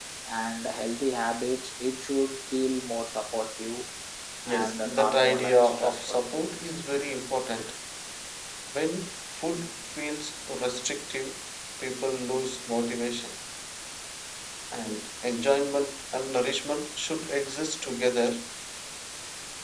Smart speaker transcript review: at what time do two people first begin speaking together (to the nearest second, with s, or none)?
5 s